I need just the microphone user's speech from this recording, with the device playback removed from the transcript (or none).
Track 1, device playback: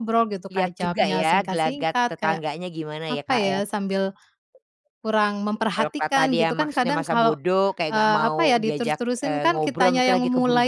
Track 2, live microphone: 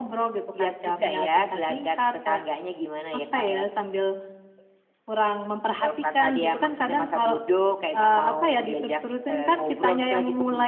none